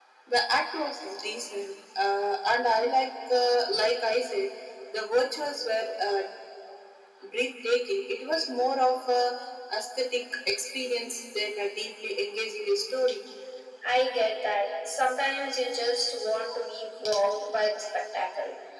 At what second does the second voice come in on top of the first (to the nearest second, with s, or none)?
none